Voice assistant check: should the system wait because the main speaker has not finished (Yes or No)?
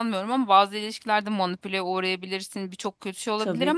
Yes